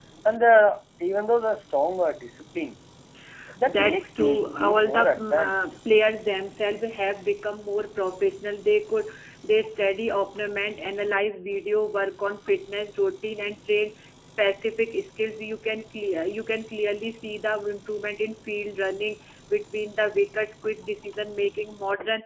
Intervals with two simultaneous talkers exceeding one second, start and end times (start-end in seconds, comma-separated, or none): 3.6-5.6